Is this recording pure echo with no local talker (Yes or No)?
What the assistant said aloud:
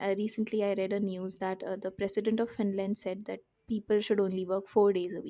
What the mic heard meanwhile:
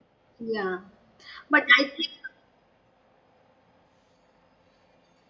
No